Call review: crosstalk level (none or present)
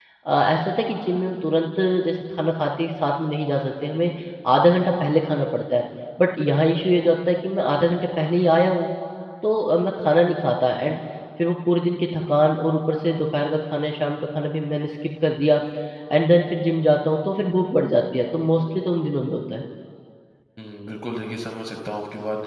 none